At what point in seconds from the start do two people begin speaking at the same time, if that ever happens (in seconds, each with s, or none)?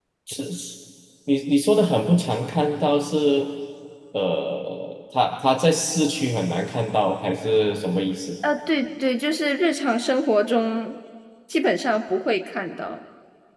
none